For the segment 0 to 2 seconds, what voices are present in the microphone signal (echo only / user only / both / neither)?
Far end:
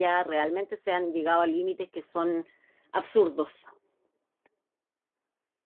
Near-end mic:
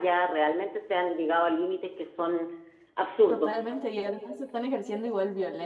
echo only